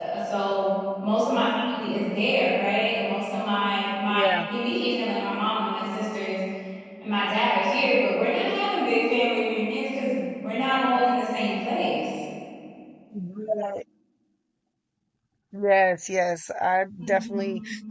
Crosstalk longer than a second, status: none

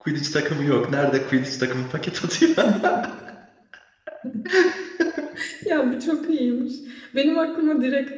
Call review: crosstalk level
none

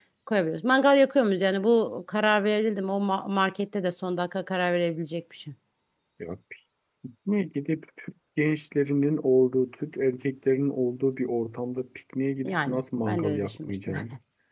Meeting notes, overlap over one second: present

